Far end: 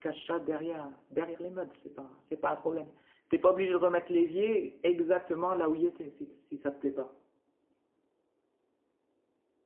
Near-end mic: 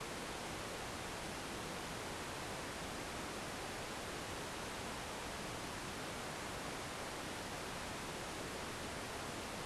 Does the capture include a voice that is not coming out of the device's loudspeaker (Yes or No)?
No